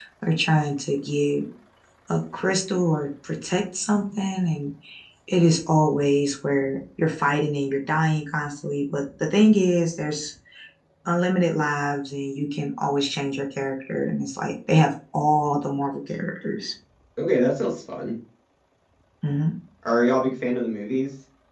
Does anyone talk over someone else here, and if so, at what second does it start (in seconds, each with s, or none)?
none